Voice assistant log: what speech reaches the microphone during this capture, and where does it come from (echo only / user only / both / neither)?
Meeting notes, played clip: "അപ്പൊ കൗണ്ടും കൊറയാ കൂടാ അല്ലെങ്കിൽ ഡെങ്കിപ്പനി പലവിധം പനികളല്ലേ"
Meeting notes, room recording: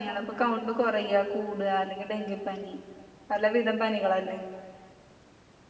echo only